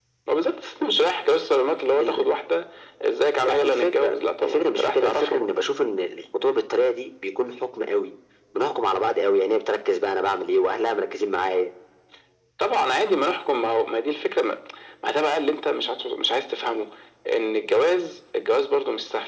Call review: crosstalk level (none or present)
present